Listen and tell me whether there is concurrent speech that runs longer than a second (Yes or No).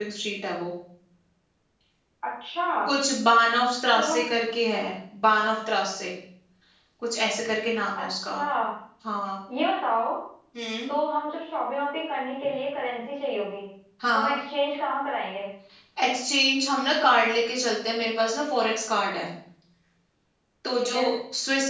No